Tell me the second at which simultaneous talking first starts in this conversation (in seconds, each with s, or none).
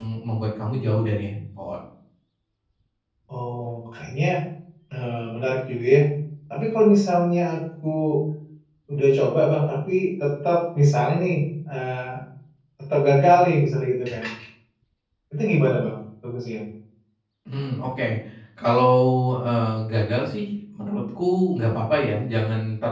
none